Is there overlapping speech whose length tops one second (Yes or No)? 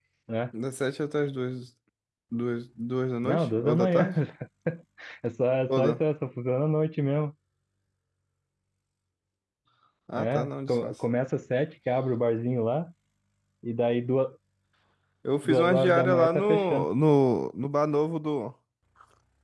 Yes